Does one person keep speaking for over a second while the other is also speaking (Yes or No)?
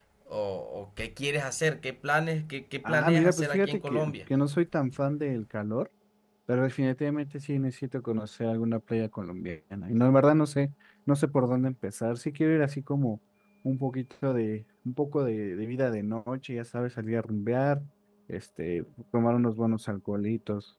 Yes